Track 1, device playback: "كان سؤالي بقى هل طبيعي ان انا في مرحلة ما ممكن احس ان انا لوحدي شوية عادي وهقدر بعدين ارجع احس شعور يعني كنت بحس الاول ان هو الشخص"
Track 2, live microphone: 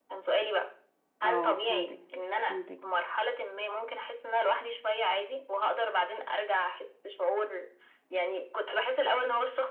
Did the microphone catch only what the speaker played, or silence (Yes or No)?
No